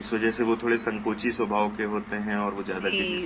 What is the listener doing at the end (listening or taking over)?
taking over